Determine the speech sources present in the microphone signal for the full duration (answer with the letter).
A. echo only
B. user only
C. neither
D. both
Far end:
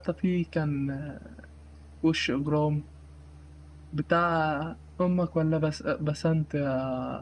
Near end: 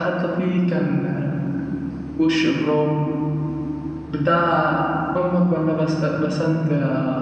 A